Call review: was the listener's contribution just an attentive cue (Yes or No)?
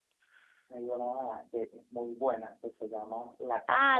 No